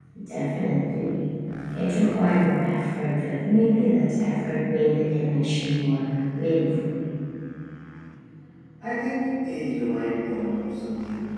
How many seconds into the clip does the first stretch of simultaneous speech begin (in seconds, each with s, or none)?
none